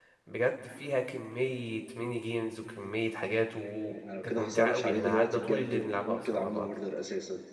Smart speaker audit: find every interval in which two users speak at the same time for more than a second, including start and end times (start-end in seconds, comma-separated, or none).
4.0-6.7